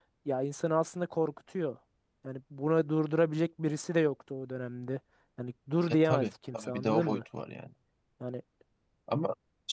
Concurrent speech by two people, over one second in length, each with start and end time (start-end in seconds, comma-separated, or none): 5.9-7.2